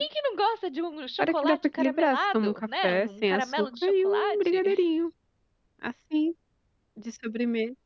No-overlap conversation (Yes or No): No